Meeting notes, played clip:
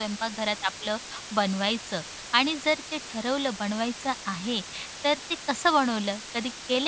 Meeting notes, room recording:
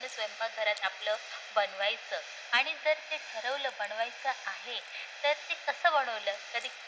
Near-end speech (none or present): none